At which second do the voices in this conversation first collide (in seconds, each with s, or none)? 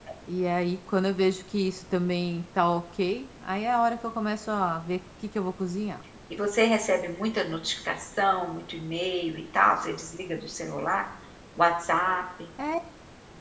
none